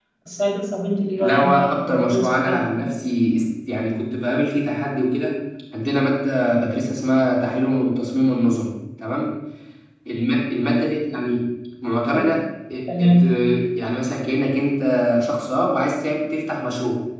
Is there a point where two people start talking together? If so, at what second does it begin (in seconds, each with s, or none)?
1.2 s